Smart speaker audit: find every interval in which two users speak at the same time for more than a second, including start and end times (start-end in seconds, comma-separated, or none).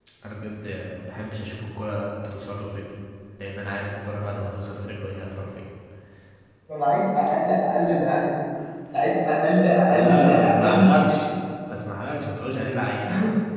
9.9-11.2